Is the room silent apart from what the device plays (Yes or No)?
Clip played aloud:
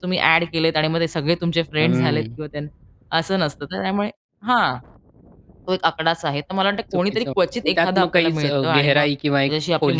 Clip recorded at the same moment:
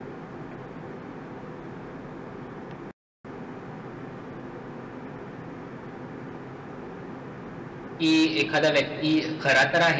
No